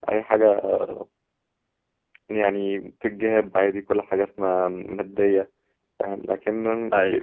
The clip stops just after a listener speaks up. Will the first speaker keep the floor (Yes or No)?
Yes